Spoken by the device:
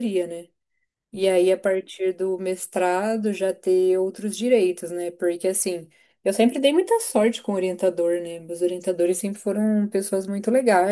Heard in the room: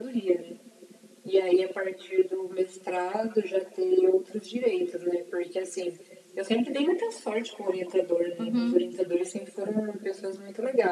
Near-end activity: present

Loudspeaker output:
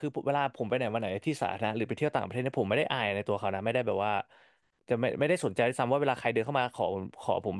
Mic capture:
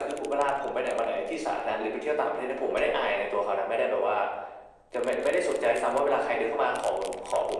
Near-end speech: none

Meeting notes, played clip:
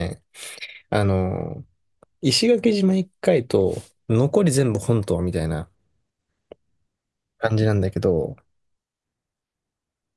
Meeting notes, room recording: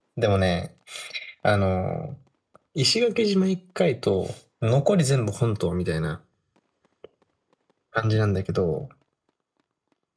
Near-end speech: none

